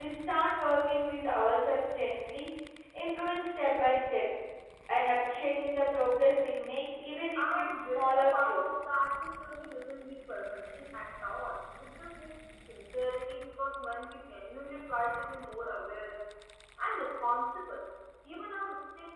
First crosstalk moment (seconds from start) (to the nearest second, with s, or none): 7 s